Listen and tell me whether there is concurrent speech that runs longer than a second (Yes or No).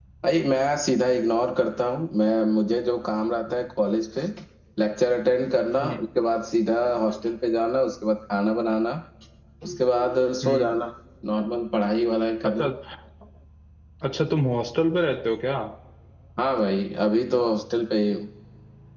No